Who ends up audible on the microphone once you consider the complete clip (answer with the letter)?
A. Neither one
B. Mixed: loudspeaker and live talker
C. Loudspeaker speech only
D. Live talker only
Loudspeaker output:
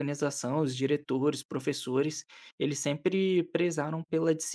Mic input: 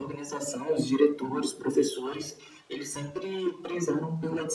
C